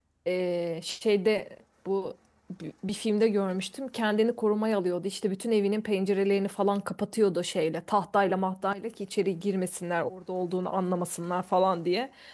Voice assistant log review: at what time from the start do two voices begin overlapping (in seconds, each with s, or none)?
none